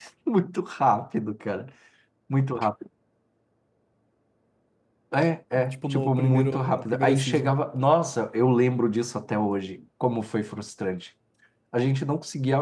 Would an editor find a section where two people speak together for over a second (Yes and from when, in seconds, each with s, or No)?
Yes, from 5.5 s